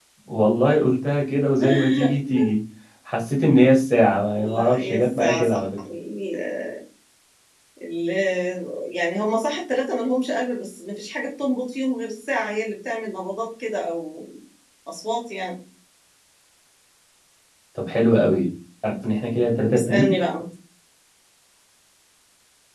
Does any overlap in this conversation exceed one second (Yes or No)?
Yes